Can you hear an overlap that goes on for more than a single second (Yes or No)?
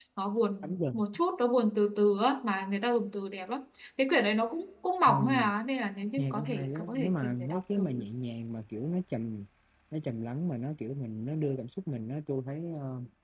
Yes